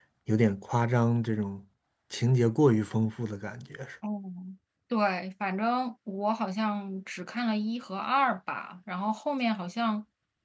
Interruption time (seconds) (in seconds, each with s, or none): none